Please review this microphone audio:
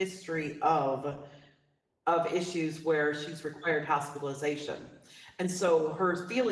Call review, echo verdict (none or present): none